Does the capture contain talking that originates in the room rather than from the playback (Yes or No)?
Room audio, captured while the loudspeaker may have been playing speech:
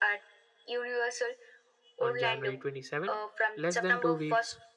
Yes